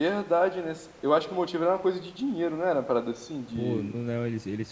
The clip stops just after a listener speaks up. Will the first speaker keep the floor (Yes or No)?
No